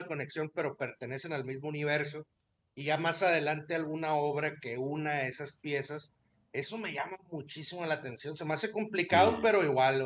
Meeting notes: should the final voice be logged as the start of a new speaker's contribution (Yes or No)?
No